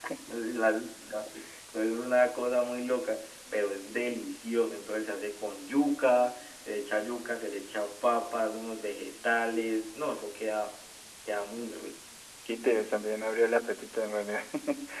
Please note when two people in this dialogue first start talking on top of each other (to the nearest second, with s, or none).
none